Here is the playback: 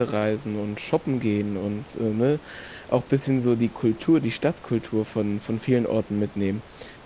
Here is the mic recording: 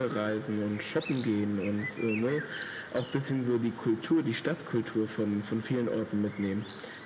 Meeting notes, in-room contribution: none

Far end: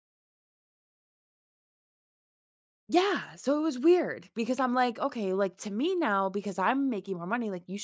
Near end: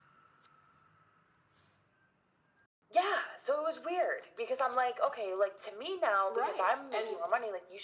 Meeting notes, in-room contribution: present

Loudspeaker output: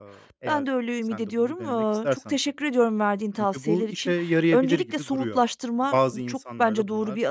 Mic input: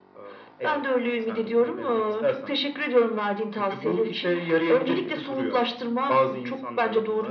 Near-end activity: none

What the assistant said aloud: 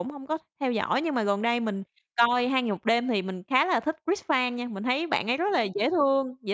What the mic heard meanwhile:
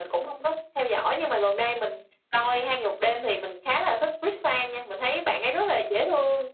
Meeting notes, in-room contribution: none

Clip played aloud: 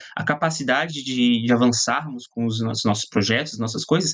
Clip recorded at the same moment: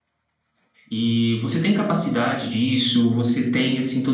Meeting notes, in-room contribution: present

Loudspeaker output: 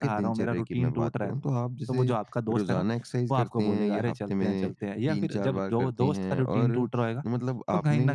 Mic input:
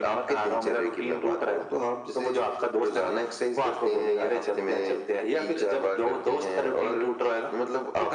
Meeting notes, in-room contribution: none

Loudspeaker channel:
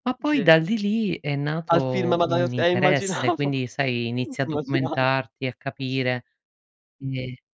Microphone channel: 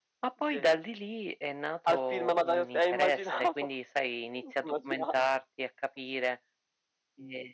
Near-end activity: none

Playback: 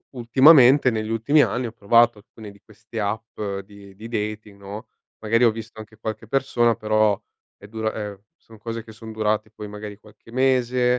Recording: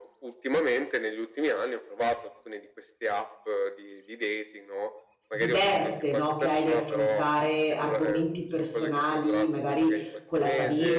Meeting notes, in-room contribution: present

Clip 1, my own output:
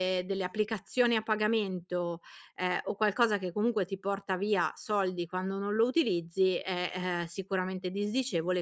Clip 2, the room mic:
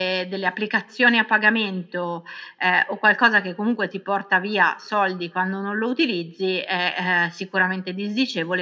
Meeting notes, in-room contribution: none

